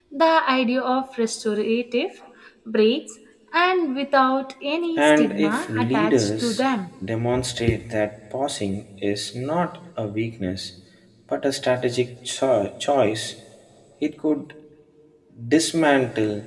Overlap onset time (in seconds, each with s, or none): 5.0 s